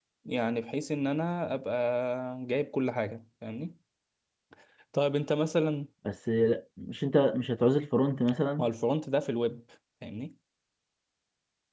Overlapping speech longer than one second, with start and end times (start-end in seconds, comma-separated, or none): none